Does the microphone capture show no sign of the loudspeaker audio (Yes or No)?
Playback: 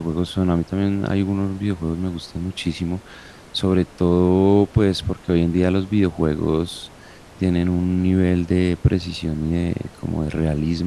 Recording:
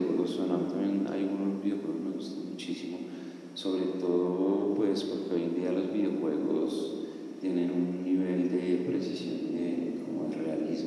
No